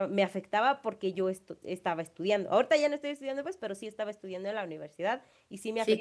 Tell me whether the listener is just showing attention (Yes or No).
Yes